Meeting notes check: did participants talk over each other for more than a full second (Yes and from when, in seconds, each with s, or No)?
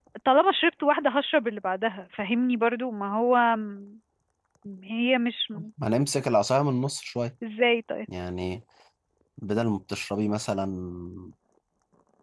No